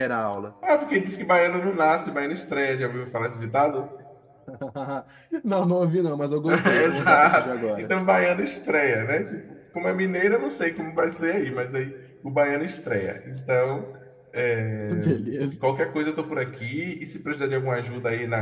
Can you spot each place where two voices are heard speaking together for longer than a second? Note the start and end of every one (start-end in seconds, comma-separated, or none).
6.5-7.9